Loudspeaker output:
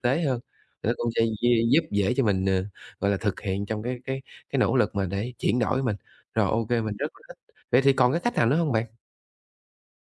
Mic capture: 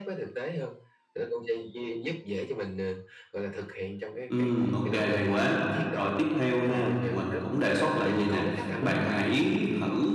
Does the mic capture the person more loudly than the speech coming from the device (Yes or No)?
Yes